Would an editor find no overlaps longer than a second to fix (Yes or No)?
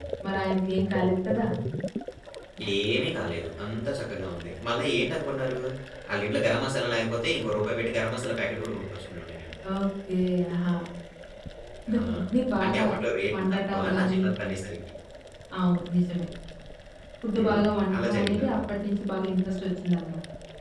No